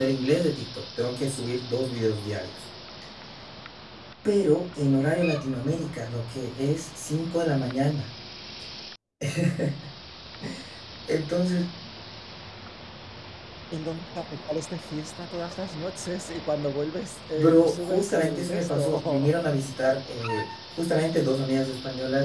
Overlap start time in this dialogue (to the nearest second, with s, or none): 17 s